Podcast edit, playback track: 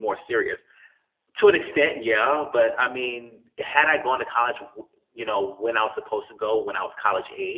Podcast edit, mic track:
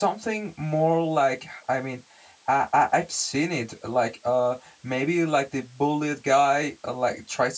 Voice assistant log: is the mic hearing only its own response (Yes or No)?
No